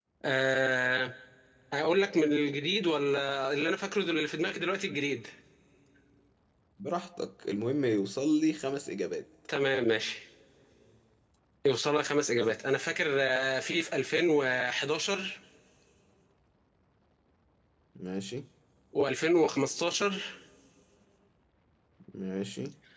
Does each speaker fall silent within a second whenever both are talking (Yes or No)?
Yes